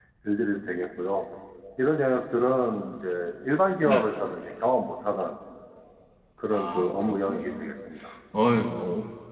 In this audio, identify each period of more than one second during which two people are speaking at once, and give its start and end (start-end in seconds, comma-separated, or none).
6.5-7.7